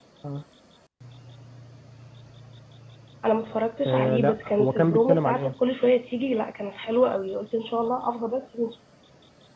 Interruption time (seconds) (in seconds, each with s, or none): 3.9 s